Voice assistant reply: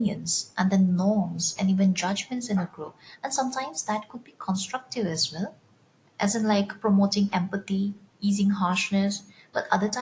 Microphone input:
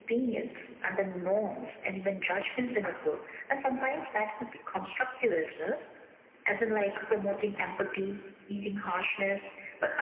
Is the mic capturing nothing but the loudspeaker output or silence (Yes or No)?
Yes